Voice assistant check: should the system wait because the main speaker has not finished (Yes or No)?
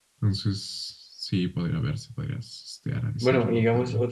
No